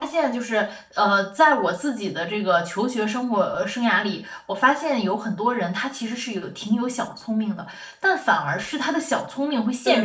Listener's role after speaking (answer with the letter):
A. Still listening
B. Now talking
B